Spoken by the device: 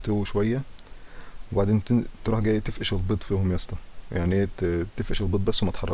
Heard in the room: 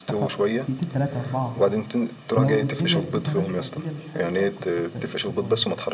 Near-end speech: present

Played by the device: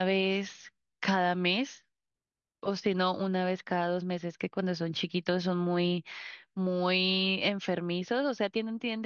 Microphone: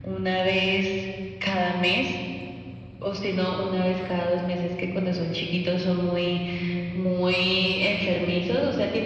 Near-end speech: none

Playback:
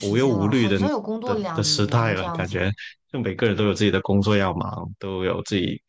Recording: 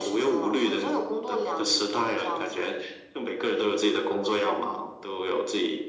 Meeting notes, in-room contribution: none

